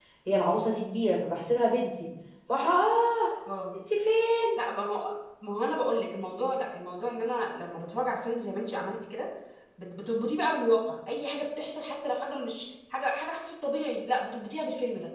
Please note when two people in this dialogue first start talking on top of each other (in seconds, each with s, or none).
none